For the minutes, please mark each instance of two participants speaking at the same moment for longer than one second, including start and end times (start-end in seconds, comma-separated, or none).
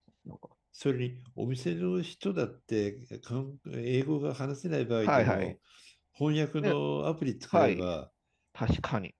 none